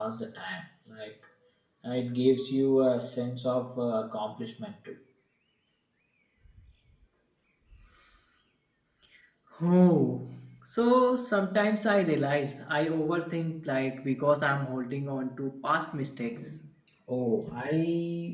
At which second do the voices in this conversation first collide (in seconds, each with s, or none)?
none